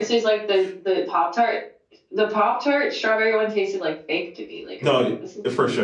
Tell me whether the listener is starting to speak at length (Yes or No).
Yes